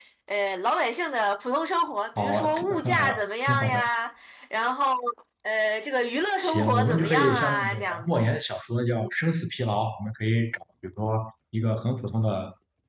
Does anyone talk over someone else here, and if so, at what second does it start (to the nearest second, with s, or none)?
2 s